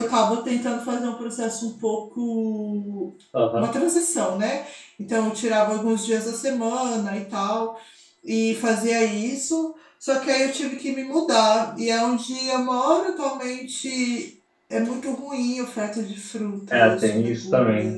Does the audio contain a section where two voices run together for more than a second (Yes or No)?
Yes